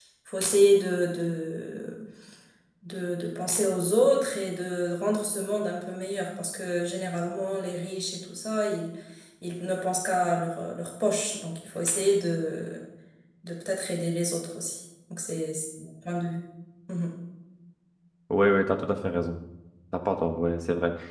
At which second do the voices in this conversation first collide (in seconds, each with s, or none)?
none